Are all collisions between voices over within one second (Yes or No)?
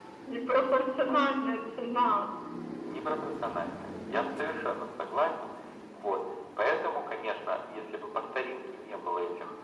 Yes